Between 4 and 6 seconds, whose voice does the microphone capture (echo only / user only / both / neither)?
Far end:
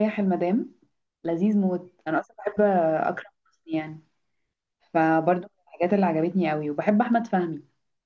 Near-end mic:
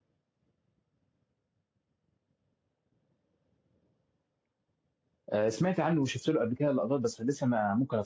user only